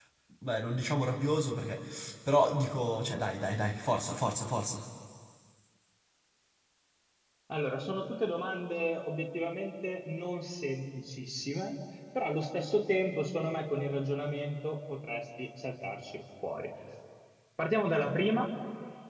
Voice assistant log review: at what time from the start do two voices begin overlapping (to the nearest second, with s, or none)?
none